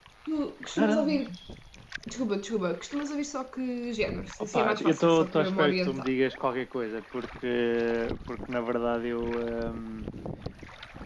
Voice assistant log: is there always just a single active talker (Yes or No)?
No